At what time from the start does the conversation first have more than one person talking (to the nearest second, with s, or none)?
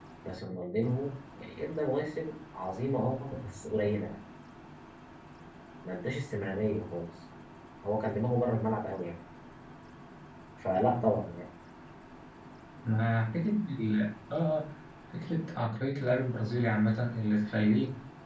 none